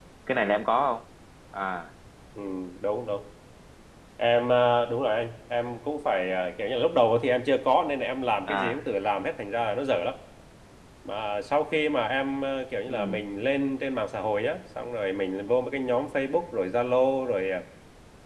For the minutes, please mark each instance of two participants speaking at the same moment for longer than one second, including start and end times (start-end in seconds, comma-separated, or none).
none